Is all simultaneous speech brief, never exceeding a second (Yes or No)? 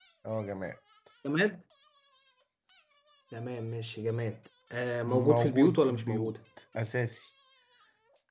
No